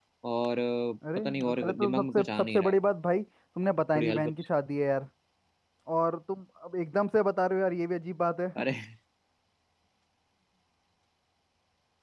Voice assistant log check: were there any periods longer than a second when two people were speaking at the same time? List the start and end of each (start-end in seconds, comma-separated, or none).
1.2-2.8